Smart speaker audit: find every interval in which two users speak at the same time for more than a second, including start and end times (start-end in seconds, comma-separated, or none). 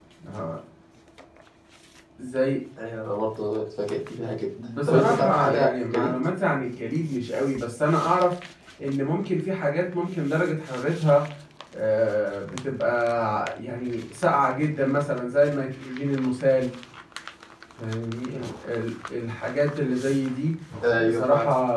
4.9-6.1